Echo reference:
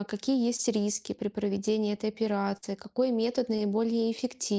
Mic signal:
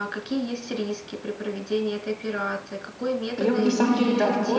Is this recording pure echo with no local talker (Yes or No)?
No